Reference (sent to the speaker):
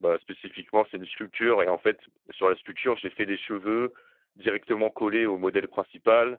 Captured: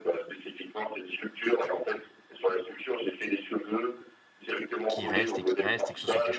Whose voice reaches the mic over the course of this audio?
both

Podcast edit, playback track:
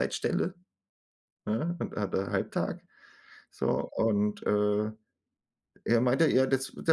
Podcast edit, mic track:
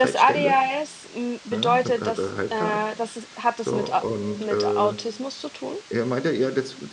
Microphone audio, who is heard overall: both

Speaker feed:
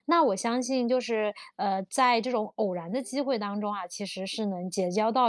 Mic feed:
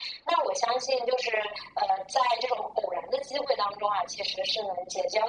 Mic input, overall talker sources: echo only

